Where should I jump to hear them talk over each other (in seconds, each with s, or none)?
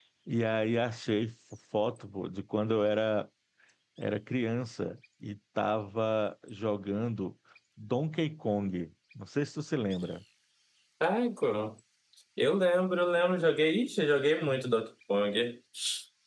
none